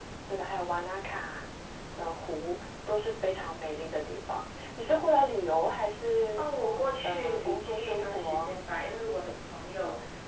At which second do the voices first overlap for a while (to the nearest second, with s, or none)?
7 s